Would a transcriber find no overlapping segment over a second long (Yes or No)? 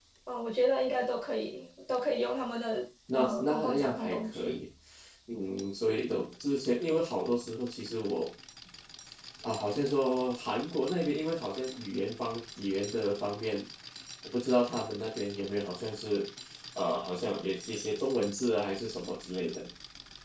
No